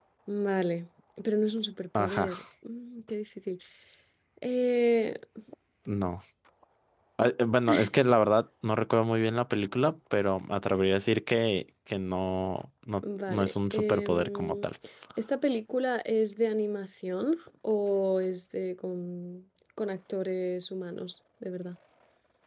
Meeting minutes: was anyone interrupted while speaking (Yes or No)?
Yes